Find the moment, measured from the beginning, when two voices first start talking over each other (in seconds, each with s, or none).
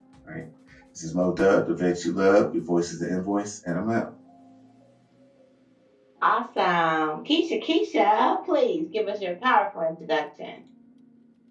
none